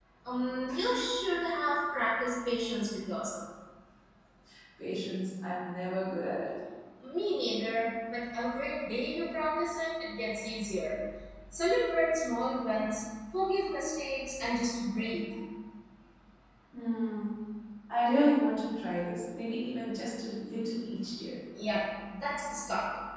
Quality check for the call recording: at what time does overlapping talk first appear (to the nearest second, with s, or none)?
none